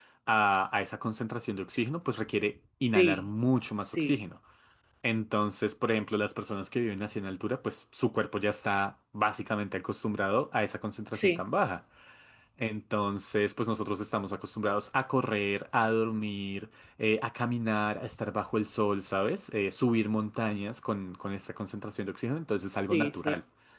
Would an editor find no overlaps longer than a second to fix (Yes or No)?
Yes